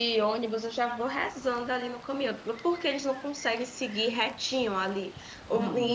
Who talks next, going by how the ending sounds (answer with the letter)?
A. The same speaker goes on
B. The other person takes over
A